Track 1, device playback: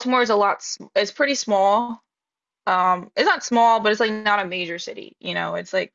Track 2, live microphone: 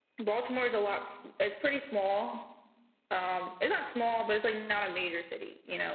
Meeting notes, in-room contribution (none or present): none